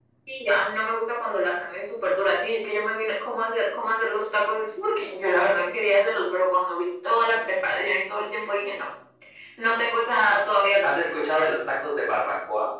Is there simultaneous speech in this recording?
No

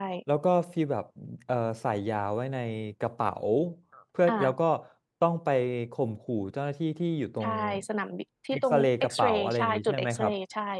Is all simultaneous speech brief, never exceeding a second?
No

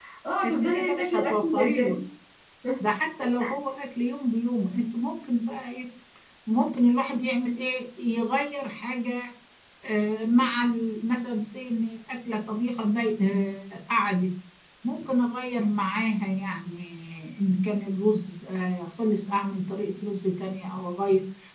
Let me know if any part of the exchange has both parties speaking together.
Yes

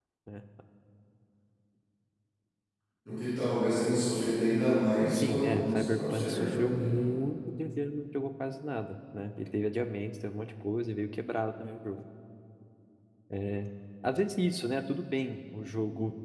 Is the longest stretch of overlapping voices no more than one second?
No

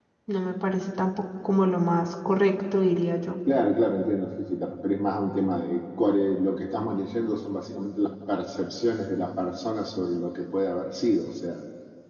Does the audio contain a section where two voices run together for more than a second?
No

